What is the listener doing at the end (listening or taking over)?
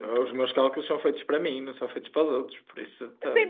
taking over